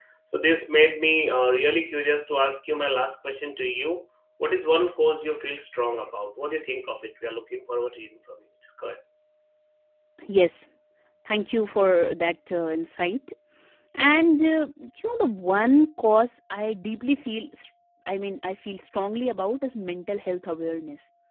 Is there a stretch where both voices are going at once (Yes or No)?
No